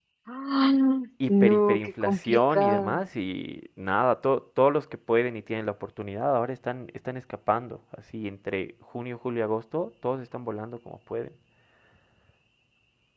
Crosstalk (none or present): present